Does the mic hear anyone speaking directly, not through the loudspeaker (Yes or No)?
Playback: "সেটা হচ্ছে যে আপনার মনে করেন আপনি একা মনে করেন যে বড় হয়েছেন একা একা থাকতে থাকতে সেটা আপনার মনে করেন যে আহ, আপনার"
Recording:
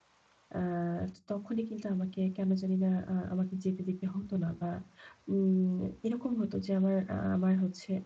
Yes